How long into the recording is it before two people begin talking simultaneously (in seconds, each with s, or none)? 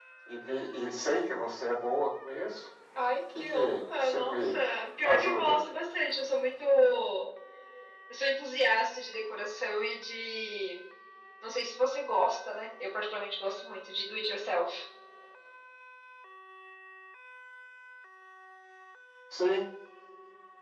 3.4 s